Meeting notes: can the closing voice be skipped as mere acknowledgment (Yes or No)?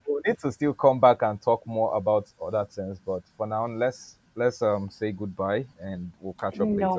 No